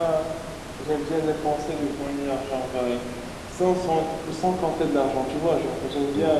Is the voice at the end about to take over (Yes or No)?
No